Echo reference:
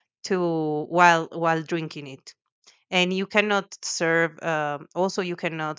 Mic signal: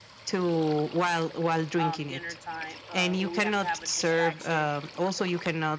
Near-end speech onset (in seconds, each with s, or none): 1.7 s